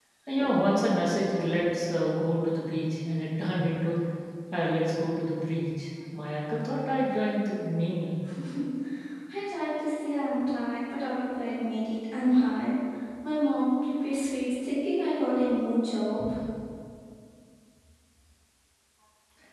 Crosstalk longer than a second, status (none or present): none